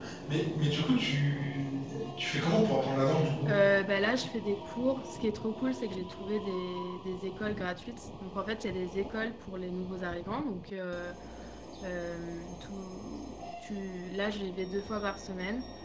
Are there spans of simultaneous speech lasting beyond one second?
No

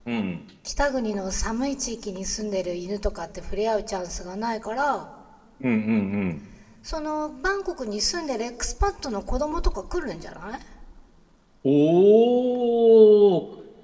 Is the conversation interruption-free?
Yes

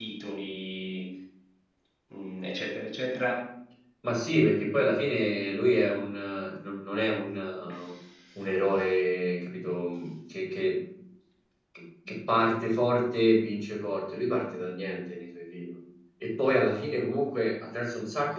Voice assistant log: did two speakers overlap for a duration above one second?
No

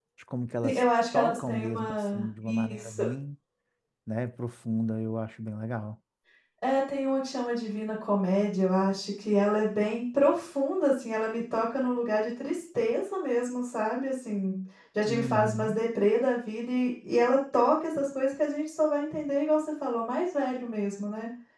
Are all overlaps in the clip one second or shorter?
No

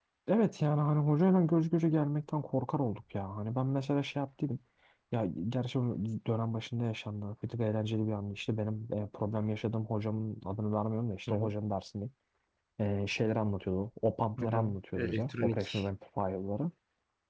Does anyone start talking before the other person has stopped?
Yes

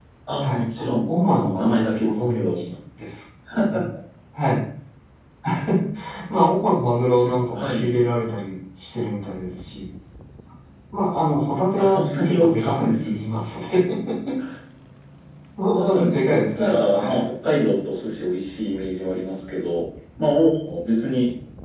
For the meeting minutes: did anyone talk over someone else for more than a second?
Yes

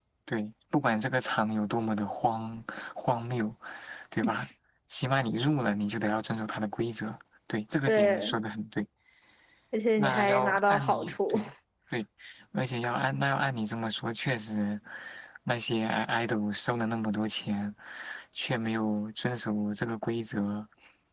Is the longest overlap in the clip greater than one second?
Yes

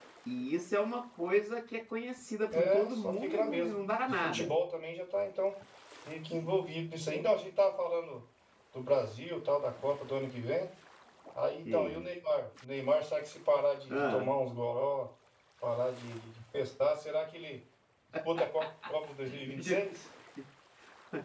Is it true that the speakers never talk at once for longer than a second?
No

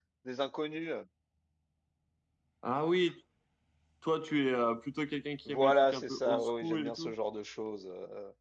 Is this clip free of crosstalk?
No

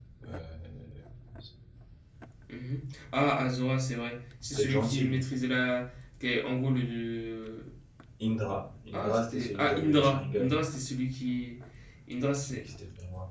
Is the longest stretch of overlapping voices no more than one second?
No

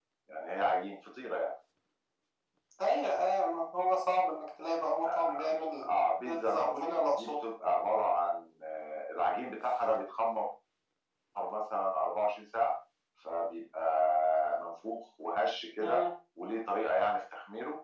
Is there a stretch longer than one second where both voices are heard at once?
Yes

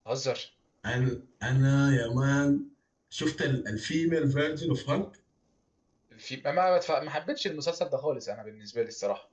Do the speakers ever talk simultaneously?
No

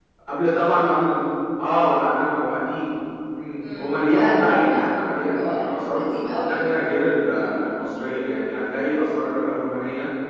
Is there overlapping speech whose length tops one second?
Yes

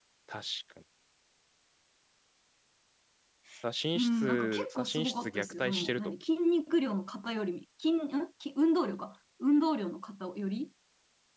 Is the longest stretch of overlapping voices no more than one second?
No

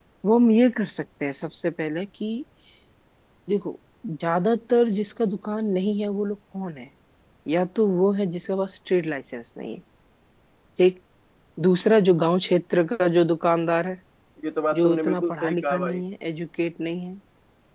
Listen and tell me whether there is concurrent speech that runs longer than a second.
Yes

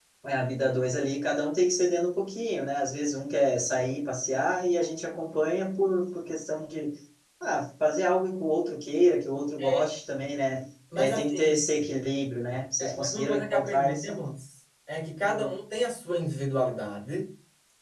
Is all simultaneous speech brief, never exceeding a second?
No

